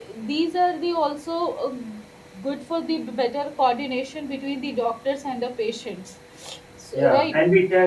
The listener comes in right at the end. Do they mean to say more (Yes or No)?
Yes